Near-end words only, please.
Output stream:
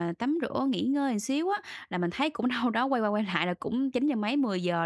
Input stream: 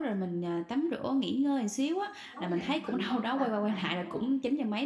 Tối về bạn tự vấn với bản thân bạn luôn, đúng hông?

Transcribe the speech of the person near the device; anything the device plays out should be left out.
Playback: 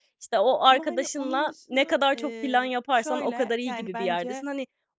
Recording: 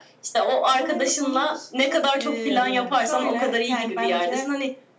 Evet.

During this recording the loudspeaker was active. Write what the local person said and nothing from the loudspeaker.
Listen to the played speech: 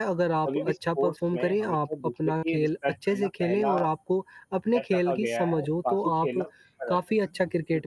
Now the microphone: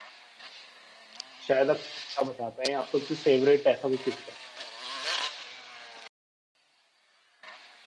शायद आप एक किस्सा बता पाएँ आपका कोई फेवरेट ऐसा कोई किस्सा?

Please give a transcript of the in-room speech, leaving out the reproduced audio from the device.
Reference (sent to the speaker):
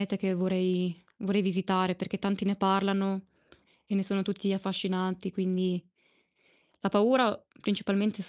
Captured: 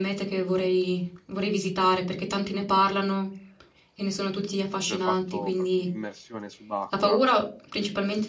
lui ha fatto proprio un'immersione subacquea

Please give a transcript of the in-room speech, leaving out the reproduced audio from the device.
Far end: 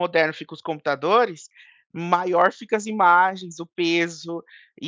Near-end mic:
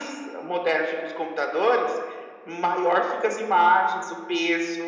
none

